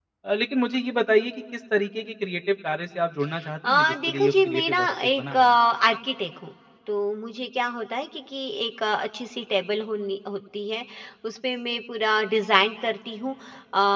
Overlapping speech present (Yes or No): Yes